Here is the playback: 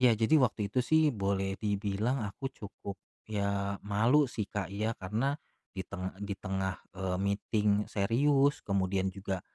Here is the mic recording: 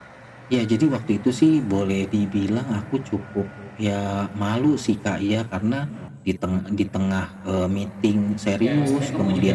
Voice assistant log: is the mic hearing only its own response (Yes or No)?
No